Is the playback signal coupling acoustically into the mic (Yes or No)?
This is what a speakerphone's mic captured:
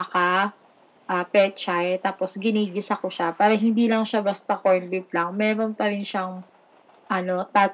Yes